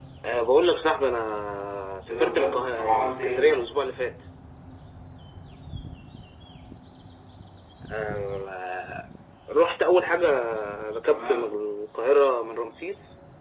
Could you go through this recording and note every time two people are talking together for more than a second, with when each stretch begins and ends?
2.1-3.6

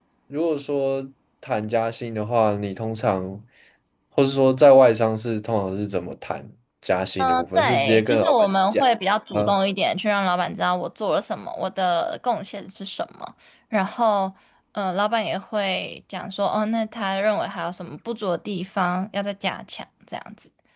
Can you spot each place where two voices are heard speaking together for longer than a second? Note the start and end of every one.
7.2-8.8

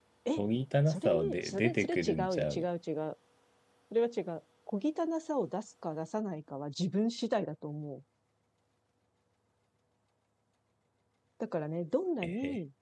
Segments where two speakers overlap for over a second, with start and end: 0.9-2.6

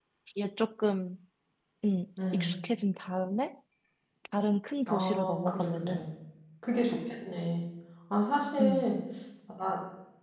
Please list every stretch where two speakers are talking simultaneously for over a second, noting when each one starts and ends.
4.9-6.1

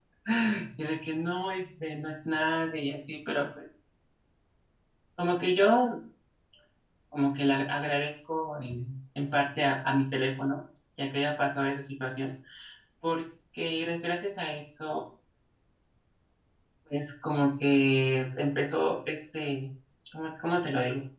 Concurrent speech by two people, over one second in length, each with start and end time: none

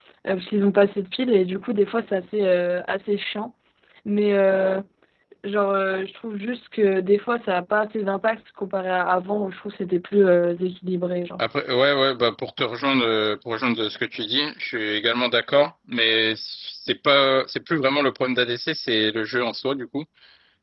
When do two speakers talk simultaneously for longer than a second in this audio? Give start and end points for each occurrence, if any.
none

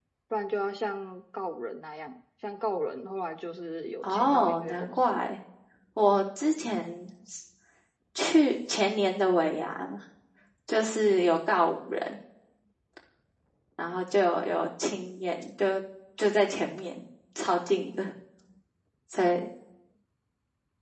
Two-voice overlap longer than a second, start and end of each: 4.0-5.3

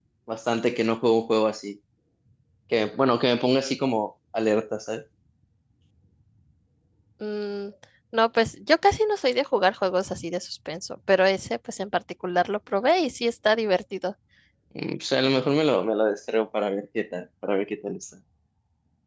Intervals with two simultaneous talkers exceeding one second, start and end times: none

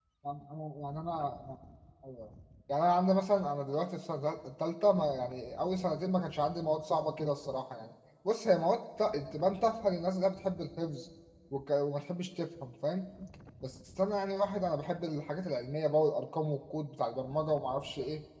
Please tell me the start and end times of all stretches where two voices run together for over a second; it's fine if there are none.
none

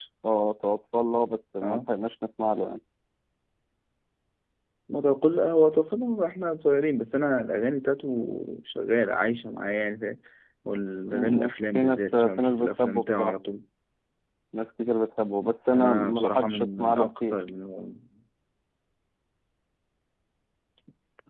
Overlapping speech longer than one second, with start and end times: 11.1-13.3, 15.7-17.4

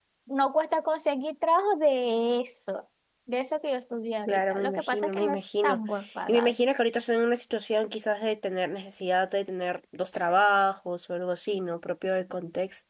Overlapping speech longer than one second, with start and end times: 4.3-5.8

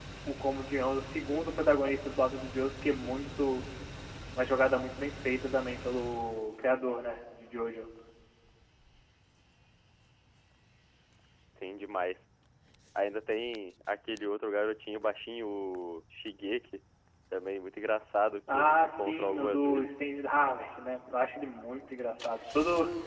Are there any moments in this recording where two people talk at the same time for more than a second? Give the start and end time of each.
18.5-20.0

